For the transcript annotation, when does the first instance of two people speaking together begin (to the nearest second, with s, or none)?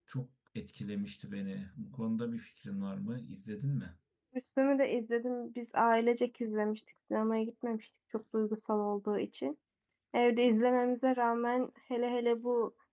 none